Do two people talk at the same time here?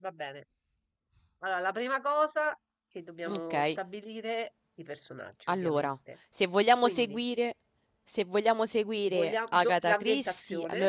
Yes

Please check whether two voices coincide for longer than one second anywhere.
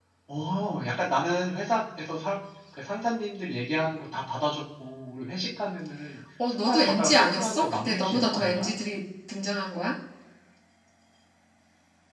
Yes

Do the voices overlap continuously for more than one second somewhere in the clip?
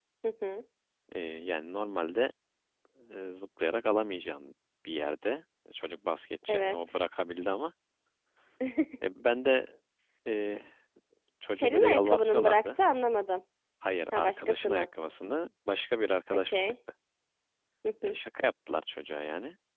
Yes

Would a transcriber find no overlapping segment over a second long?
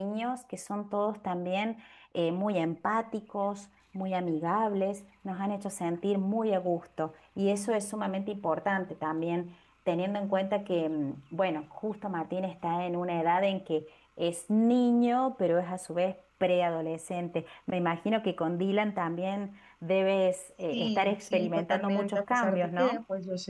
No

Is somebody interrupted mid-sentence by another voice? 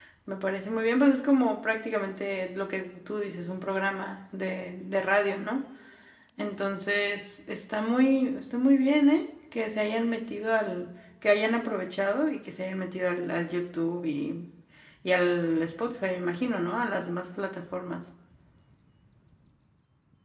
No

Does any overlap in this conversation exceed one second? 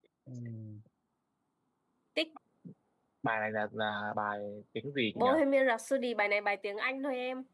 No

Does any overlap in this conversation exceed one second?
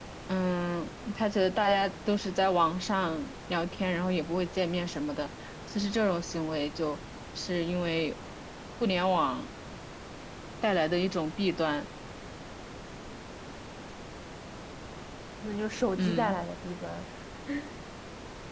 No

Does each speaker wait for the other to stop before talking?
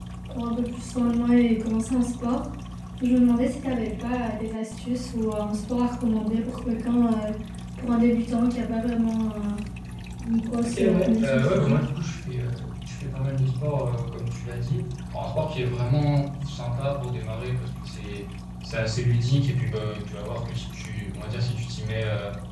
No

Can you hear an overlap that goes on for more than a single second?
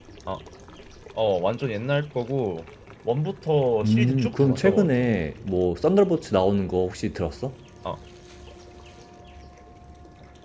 Yes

